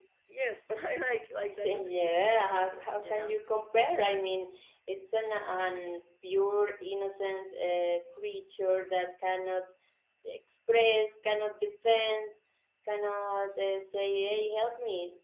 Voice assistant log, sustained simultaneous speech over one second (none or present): present